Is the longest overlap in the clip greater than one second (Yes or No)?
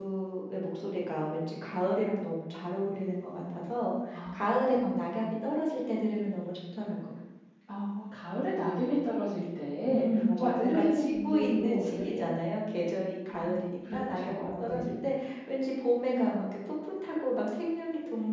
Yes